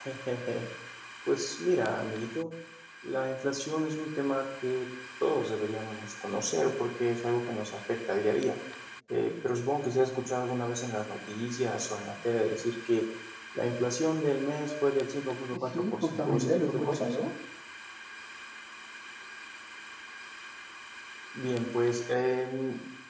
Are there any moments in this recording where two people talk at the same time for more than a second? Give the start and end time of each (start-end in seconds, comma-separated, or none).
15.5-17.1